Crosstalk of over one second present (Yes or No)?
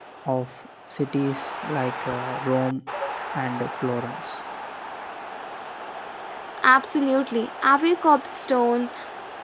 No